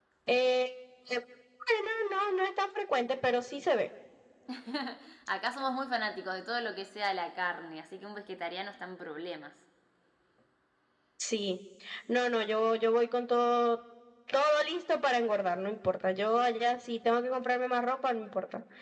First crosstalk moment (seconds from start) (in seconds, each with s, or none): none